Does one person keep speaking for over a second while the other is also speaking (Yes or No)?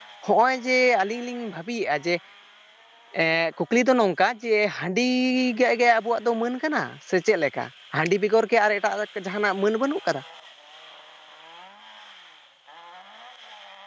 No